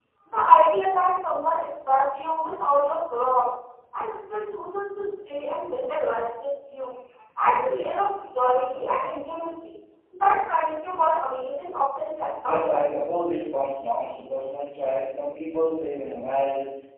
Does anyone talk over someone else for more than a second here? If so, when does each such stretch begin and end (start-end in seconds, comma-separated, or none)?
none